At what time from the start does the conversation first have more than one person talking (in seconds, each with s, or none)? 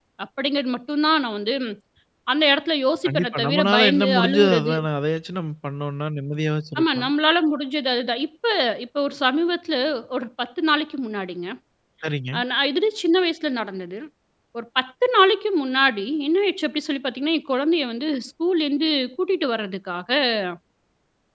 3.0 s